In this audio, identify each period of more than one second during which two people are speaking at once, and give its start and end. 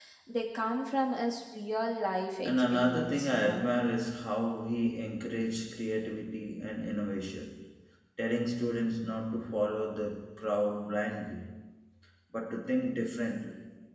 2.4-3.6

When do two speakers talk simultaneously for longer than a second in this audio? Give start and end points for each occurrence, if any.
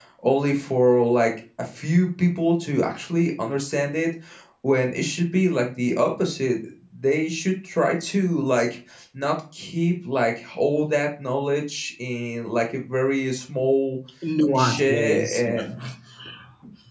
14.5-15.8

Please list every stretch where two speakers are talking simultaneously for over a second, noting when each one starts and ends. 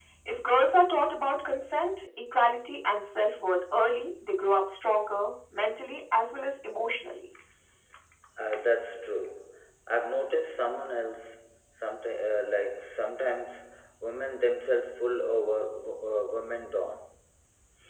none

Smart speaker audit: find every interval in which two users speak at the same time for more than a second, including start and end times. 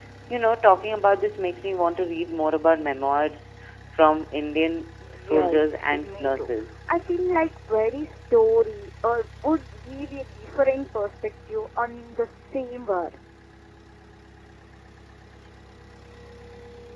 5.2-6.5

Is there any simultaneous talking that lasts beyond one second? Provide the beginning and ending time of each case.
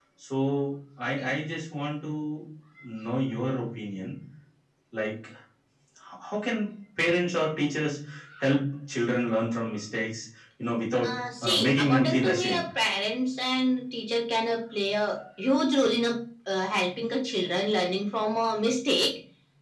11.1-12.6

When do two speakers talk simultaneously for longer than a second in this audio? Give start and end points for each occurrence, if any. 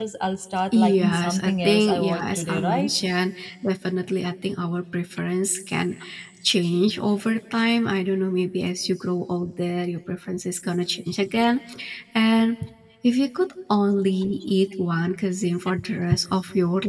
0.7-3.0

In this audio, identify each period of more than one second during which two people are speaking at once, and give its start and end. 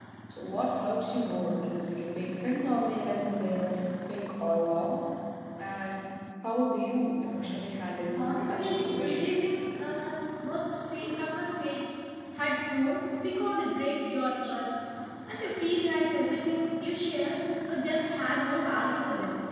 8.2-9.5

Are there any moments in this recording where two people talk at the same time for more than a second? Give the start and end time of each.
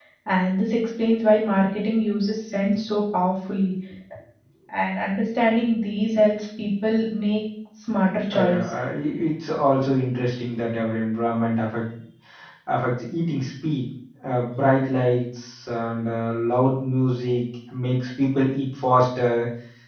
none

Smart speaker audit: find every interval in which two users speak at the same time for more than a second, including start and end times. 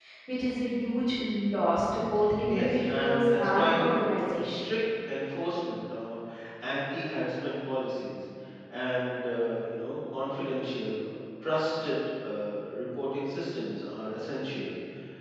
2.5-4.7

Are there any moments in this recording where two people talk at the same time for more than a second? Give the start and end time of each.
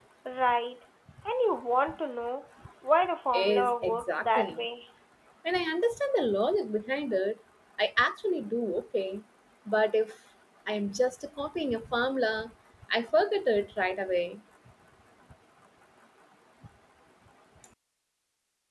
3.3-4.6

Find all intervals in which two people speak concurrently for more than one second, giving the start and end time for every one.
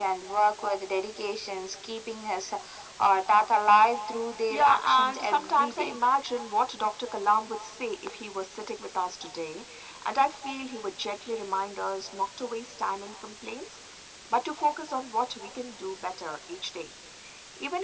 4.5-6.0

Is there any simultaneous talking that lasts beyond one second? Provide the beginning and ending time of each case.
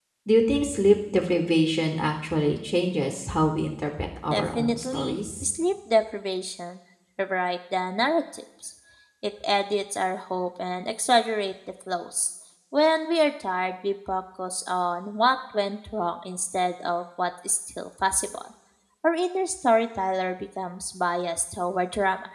4.3-5.6

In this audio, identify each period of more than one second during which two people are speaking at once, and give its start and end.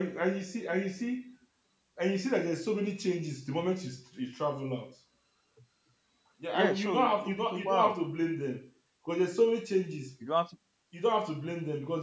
6.5-8.0

